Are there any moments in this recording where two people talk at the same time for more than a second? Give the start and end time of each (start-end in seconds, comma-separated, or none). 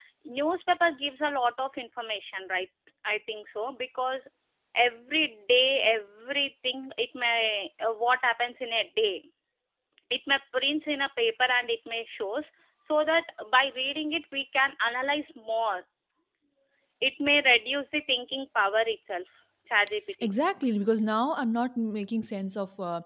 none